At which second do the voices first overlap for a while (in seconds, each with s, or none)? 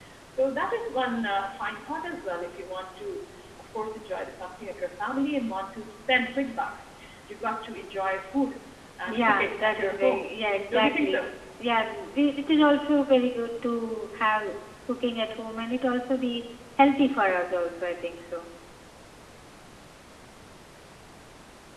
9.1 s